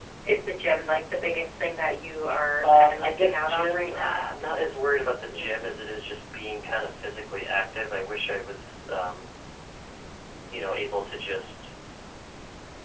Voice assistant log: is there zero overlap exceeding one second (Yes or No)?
No